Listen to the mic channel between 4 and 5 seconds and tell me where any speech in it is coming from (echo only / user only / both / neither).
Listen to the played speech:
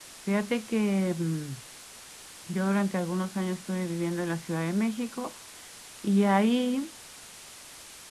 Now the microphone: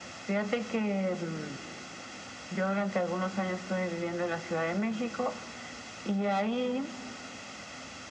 echo only